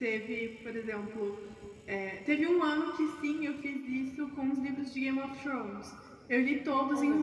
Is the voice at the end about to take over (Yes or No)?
No